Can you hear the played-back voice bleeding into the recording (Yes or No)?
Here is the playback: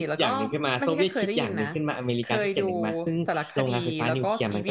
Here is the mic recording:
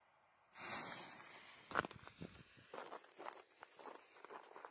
No